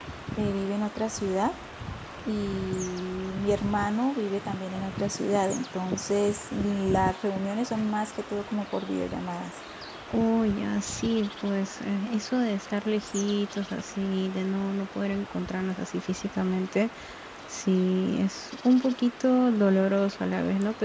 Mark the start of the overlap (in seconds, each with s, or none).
none